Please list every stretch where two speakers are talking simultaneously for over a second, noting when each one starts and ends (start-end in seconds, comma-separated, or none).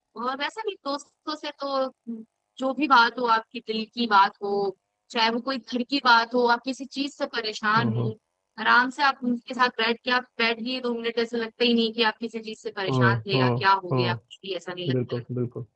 12.9-14.2